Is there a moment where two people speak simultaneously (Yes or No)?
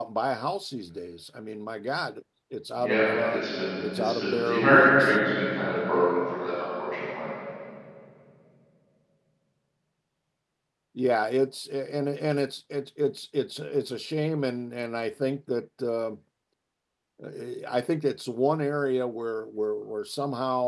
Yes